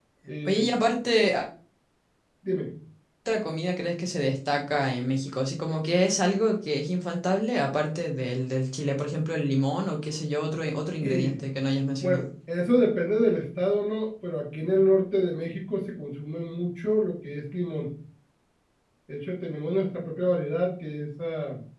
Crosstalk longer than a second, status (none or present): none